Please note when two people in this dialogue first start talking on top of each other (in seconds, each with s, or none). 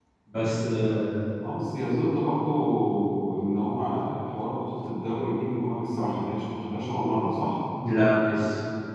none